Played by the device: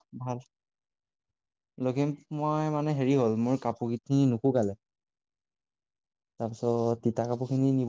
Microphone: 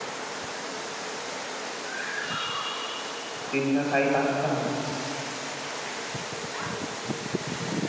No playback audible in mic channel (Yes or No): Yes